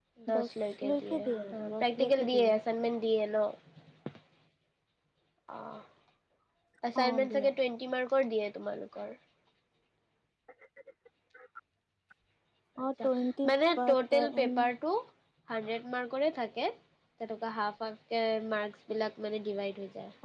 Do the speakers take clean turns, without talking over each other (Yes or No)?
No